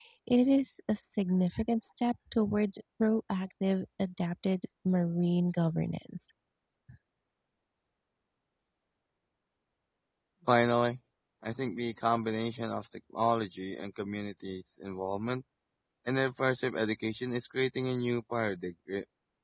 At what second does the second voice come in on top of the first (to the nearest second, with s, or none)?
none